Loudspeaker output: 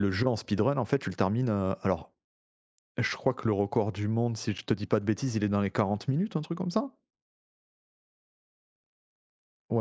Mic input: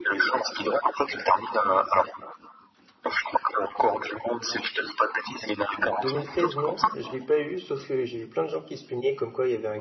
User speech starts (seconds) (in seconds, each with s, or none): 6.0 s